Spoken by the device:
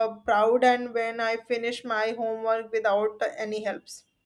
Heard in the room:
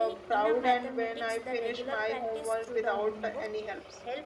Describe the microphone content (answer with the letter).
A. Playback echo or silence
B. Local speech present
B